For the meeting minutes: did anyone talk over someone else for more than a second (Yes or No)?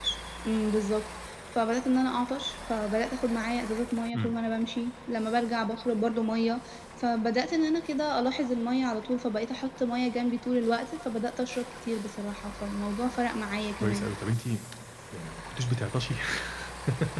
No